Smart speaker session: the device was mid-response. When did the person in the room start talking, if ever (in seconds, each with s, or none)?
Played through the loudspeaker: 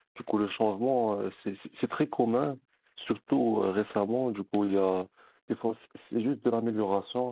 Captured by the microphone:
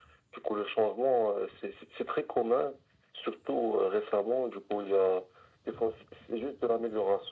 none